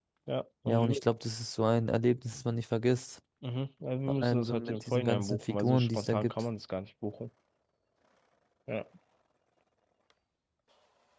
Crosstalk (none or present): present